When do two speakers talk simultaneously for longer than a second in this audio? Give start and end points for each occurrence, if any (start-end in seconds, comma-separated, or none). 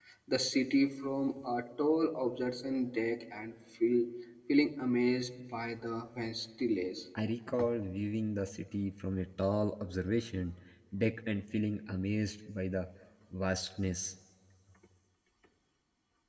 none